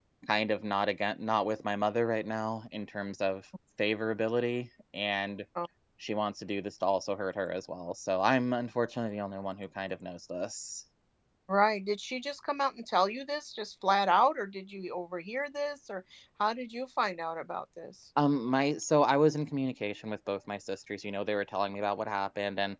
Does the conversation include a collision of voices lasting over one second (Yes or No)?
No